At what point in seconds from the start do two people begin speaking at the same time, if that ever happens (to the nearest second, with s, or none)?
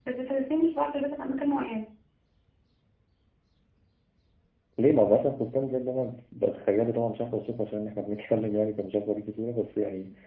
none